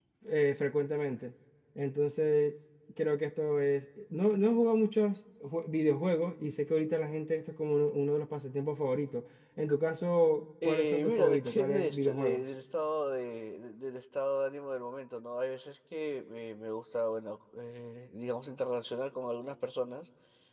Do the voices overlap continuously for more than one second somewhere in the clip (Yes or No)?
Yes